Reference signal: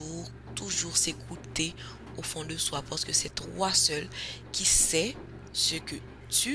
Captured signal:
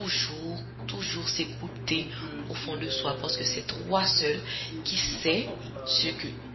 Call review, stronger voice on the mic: echo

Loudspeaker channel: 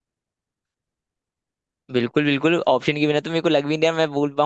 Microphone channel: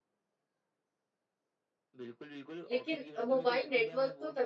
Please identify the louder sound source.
user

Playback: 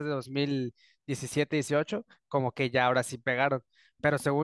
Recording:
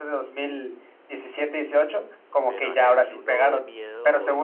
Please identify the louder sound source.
echo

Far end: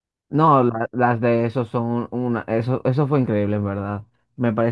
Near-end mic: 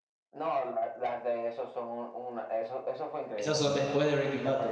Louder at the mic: user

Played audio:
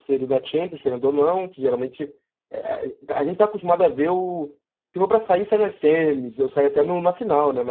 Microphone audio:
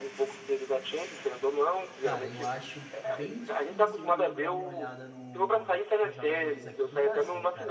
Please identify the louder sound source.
echo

